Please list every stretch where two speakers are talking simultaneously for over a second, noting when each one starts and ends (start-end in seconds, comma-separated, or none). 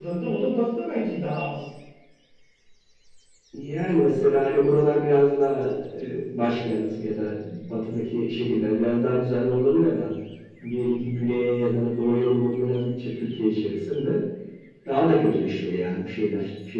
none